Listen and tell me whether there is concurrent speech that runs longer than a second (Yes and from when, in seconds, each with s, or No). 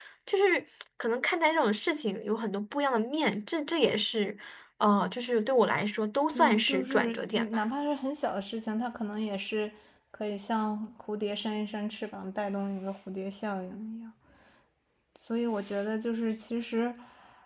Yes, from 6.3 s